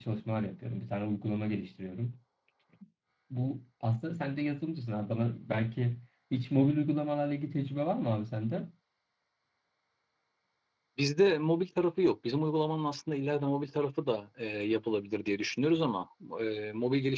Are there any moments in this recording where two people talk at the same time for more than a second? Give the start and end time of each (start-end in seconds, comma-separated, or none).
none